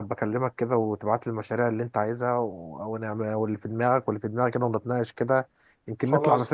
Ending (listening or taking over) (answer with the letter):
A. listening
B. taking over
B